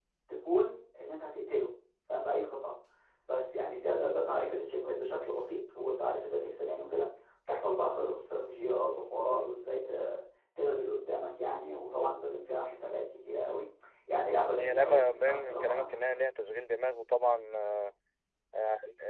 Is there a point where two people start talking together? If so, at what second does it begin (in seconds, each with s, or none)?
14.6 s